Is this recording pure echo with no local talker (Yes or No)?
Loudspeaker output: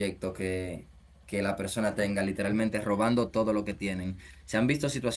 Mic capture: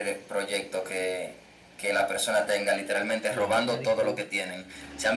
No